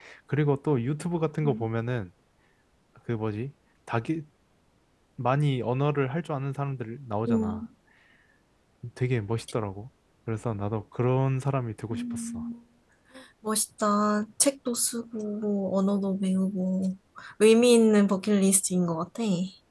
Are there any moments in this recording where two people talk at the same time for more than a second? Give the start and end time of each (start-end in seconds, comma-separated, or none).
none